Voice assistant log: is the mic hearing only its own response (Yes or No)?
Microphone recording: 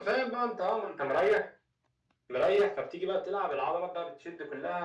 Yes